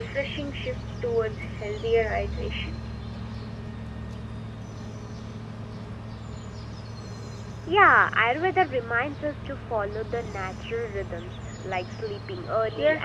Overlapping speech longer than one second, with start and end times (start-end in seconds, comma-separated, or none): none